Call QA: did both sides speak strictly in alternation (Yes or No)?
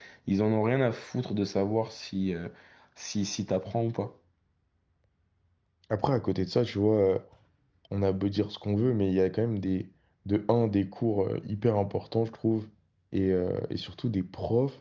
Yes